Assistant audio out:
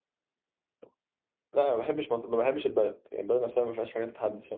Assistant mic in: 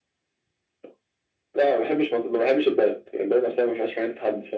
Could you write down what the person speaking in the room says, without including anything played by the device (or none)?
none